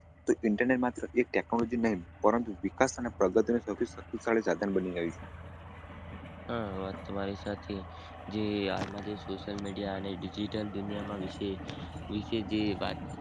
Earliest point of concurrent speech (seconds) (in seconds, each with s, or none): none